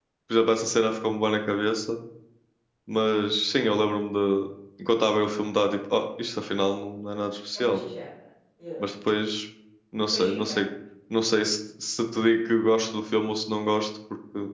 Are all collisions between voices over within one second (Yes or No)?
Yes